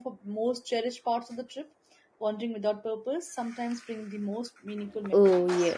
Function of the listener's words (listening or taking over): taking over